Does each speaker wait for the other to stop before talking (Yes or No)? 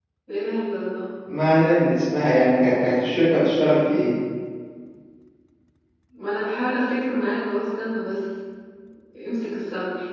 Yes